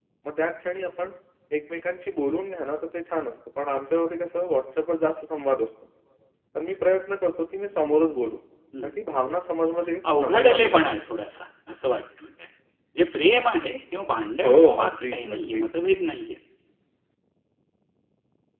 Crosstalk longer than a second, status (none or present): present